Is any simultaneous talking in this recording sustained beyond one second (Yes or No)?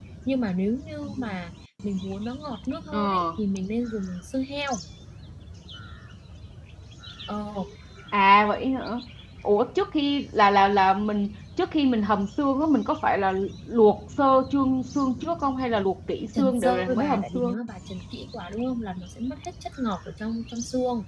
Yes